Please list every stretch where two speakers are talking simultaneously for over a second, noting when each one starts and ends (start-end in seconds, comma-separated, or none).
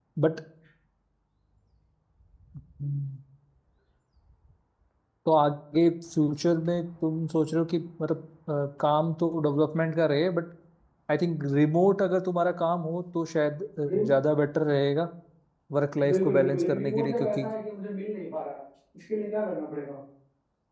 16.1-17.5